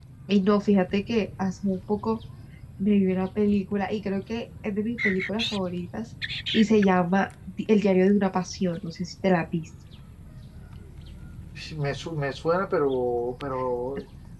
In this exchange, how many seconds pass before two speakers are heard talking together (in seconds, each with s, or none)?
none